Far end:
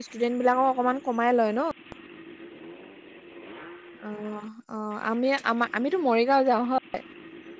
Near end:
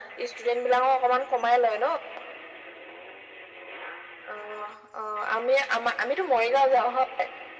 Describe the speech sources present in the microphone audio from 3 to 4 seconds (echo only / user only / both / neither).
neither